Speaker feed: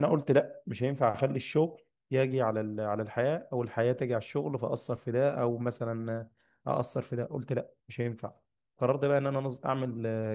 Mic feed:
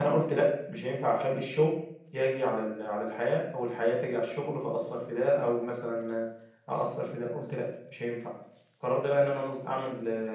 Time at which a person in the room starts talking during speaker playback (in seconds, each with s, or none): none